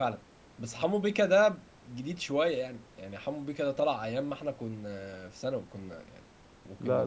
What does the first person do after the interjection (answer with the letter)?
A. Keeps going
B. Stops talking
B